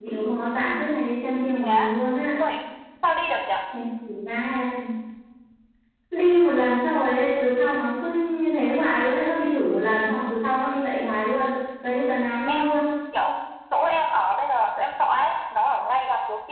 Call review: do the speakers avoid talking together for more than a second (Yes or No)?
Yes